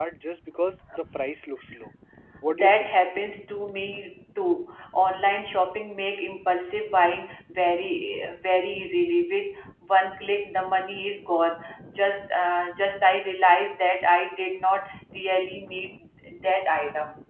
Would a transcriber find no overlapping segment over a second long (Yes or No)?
Yes